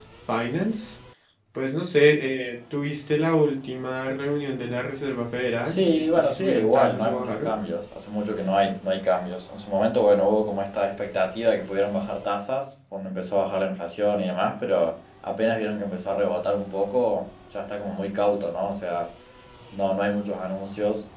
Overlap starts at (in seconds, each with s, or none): 5.6 s